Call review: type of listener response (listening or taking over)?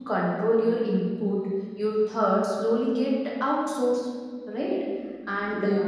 listening